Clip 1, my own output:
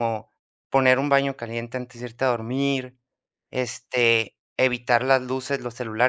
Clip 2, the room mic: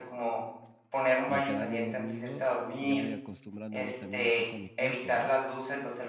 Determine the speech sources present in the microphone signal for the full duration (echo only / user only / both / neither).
both